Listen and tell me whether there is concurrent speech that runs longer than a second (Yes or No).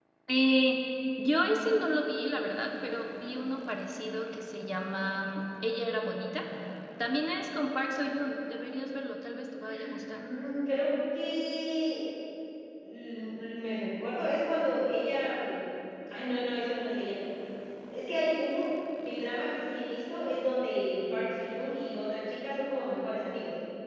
No